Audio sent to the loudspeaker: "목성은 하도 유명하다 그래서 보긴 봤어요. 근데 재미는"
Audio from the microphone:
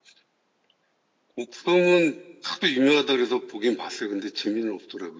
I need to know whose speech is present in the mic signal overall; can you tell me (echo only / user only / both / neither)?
echo only